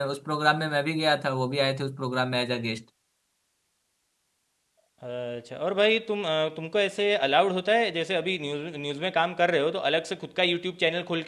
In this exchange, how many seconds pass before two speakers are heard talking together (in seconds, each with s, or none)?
none